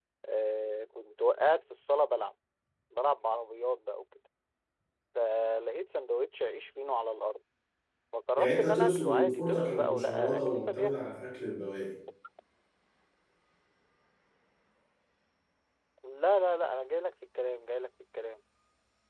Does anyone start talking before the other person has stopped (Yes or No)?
Yes